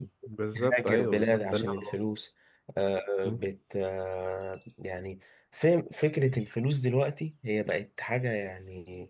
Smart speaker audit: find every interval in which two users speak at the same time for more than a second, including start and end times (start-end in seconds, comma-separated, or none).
0.6-2.0